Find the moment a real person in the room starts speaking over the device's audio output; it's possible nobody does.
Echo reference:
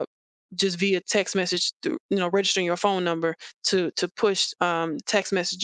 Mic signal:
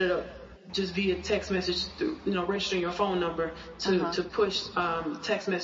3.8 s

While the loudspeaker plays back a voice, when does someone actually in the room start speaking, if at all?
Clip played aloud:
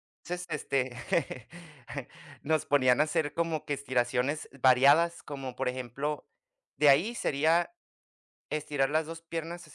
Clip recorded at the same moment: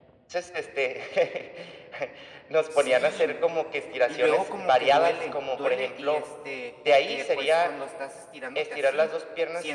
2.7 s

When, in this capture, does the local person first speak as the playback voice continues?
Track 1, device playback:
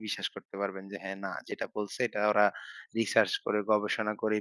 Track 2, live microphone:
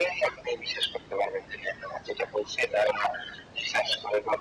none

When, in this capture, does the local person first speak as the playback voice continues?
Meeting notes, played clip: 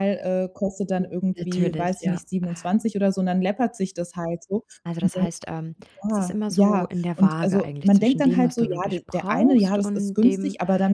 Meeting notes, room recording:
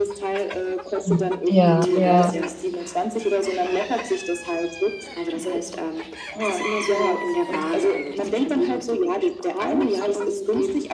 1.0 s

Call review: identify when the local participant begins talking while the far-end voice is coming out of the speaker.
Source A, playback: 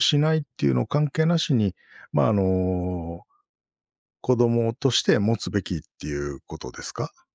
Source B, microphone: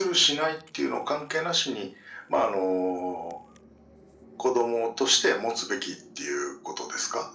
none

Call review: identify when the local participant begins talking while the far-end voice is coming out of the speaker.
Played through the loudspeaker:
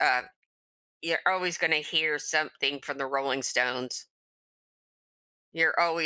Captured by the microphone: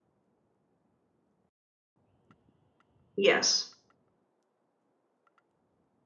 3.2 s

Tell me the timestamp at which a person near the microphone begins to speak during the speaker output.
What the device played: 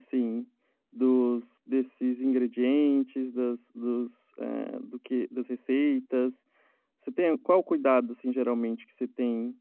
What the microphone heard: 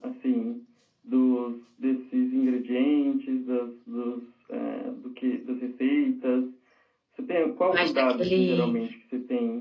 7.7 s

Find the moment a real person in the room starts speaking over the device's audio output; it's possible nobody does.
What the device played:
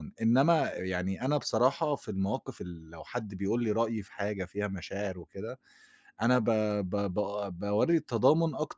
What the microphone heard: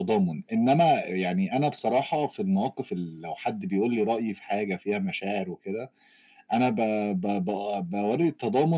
none

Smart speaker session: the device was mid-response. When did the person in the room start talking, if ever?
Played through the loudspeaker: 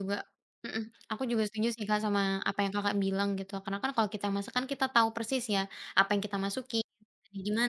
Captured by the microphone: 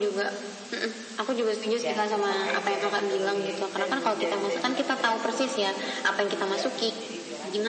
1.8 s

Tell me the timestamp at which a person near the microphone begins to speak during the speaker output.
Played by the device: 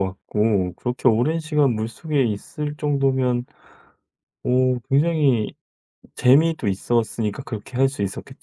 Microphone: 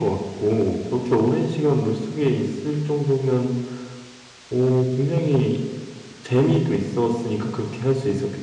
none

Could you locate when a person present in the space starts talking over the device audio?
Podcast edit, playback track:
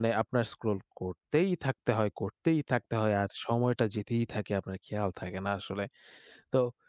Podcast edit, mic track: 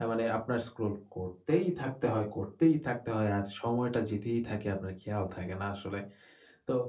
none

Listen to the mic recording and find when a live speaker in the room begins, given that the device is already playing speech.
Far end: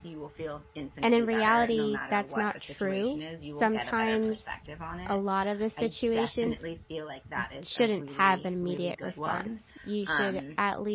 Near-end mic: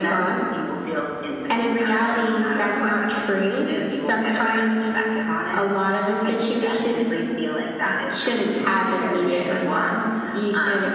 8.6 s

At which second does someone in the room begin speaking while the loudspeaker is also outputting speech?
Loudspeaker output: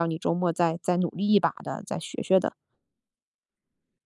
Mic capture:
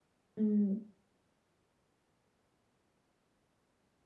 0.3 s

